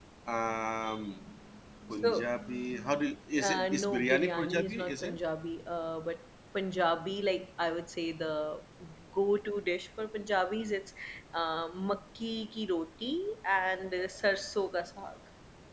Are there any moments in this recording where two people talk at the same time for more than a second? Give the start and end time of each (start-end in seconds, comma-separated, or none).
3.4-5.2